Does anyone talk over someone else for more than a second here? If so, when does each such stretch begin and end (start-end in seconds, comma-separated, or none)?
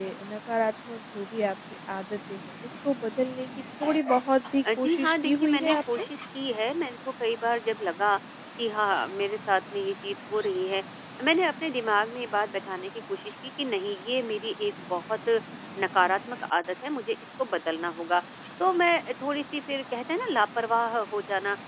4.8-6.1